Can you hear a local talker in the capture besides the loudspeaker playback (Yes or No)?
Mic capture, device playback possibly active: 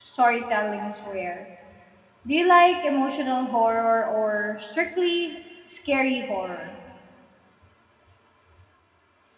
Yes